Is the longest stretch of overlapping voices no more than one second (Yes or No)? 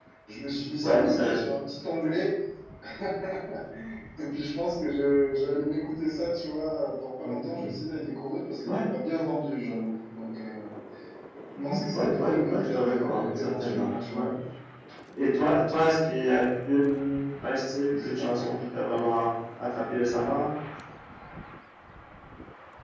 No